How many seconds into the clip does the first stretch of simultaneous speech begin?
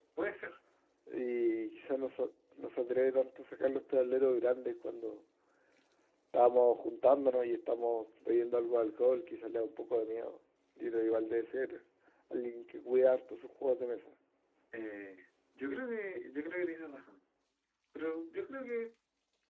none

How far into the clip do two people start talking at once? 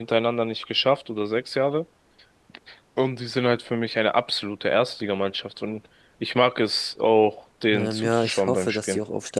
7.7 s

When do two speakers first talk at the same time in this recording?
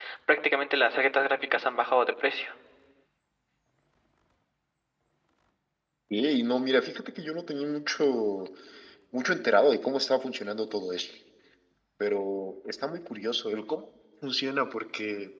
none

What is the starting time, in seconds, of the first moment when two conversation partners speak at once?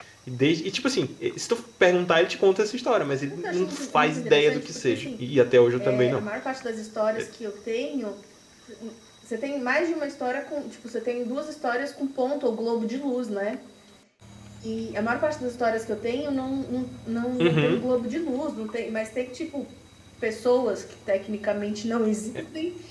3.4 s

